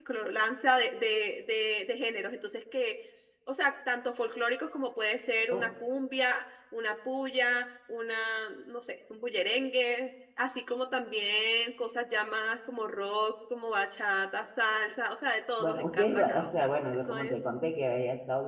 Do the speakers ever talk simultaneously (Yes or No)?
Yes